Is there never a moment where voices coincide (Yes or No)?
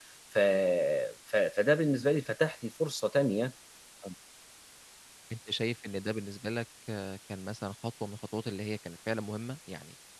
Yes